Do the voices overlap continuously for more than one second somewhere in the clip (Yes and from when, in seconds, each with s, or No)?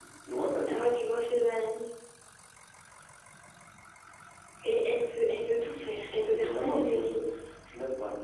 Yes, from 5.6 s